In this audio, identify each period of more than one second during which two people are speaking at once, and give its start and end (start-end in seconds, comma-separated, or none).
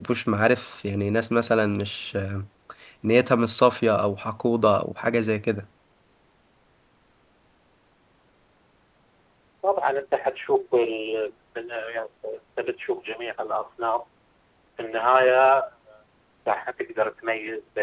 none